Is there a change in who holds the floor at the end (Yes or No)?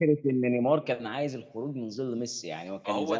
Yes